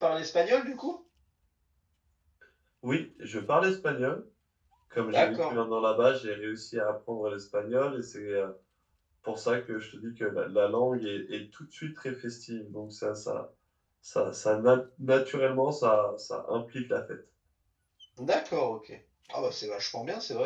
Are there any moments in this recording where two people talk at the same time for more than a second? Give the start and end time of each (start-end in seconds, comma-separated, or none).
none